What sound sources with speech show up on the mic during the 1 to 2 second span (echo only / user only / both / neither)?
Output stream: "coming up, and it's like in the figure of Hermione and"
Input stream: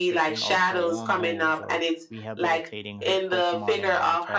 both